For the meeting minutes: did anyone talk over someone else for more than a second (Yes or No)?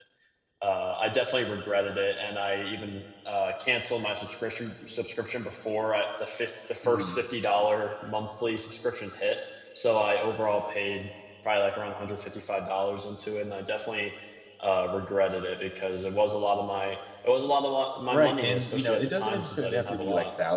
Yes